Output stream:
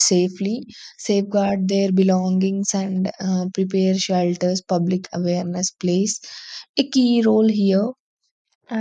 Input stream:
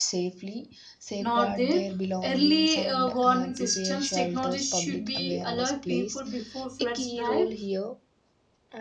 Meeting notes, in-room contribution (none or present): present